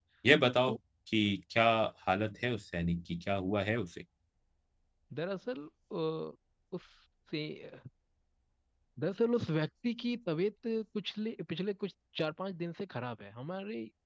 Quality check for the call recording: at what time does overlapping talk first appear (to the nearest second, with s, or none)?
none